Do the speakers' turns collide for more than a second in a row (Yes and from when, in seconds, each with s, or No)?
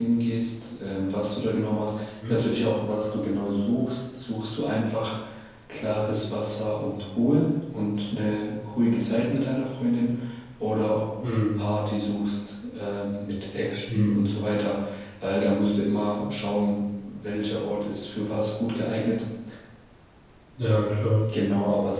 No